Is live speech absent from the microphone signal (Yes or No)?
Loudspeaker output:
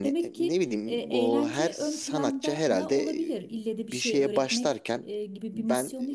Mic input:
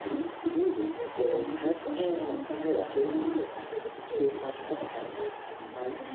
No